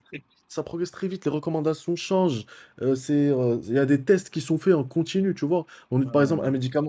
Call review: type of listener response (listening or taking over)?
listening